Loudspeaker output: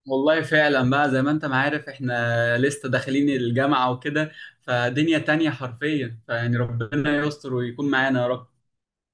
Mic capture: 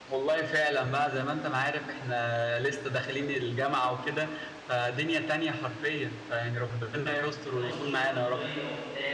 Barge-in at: 7.5 s

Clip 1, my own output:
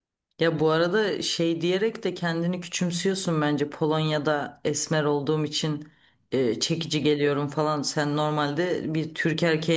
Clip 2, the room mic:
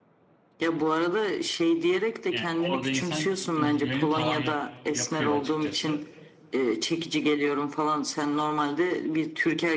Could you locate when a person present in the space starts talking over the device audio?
2.3 s

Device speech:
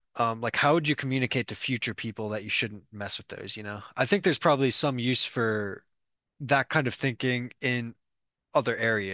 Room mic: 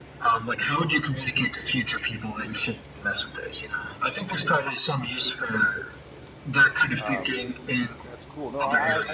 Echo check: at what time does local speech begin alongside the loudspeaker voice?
7.0 s

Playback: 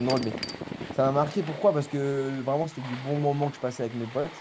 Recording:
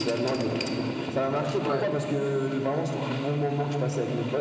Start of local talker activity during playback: 1.6 s

